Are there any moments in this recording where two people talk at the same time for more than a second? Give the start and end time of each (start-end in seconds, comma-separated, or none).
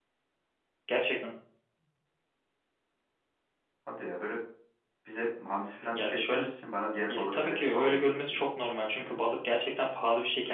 7.0-8.4